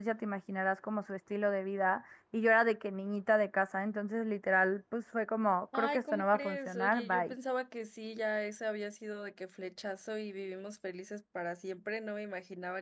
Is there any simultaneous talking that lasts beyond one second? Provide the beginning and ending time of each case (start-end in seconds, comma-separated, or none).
5.8-7.3